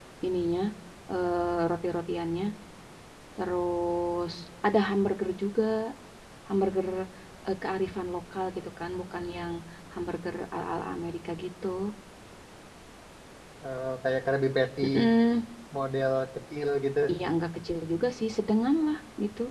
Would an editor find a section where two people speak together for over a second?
No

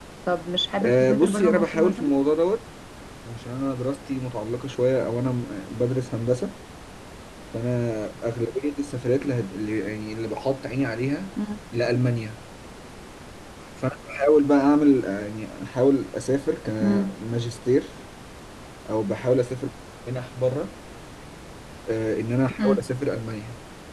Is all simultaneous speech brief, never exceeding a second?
No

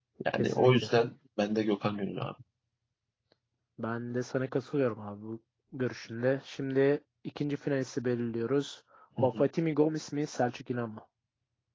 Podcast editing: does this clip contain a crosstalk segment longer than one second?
No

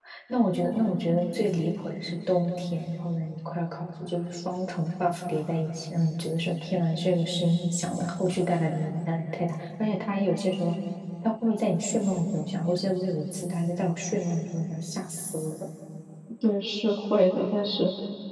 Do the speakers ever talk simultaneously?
No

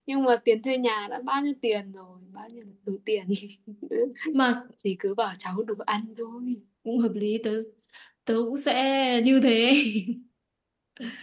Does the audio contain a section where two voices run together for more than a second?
No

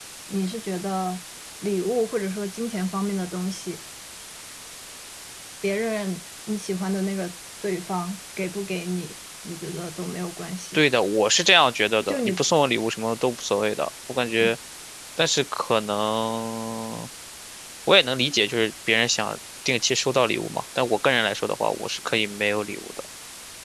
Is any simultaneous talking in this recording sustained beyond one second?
No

